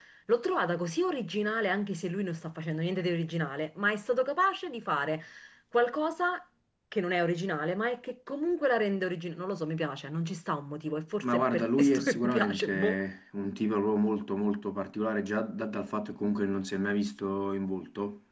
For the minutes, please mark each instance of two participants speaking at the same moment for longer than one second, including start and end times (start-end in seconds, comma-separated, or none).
11.2-13.0